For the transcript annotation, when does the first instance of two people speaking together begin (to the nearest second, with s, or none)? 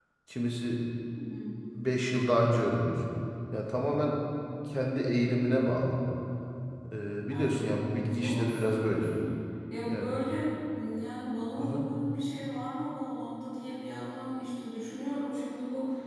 7 s